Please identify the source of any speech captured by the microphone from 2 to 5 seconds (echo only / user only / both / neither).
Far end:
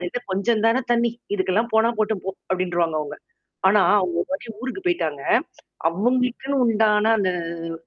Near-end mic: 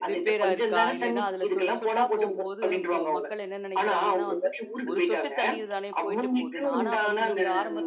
both